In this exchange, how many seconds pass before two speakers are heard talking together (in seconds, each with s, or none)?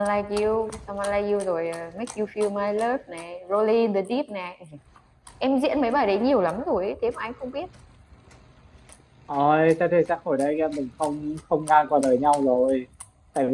none